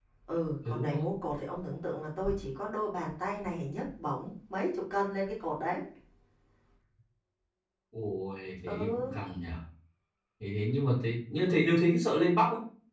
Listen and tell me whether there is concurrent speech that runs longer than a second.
No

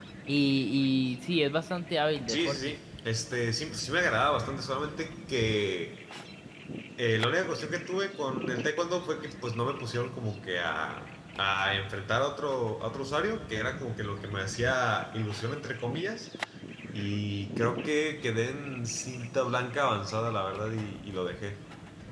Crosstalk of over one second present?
No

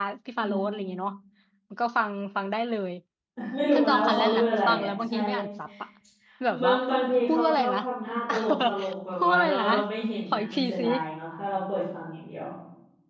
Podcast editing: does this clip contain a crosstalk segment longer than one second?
Yes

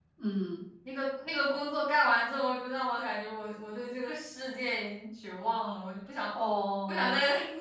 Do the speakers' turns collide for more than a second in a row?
No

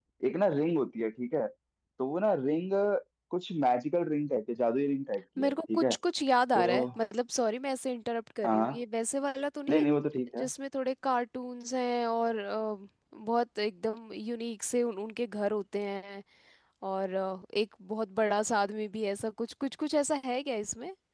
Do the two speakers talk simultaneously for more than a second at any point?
No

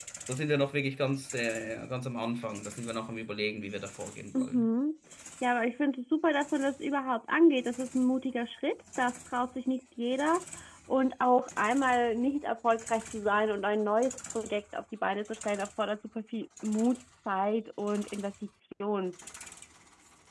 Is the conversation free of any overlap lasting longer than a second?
Yes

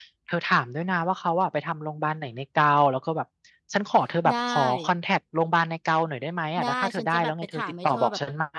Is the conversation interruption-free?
No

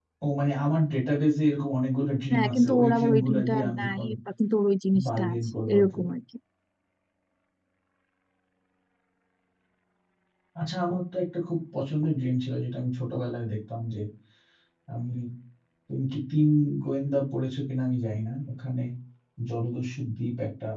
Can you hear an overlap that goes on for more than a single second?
Yes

